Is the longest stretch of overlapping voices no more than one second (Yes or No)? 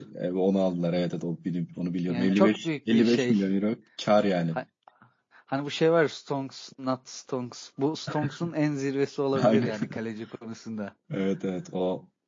No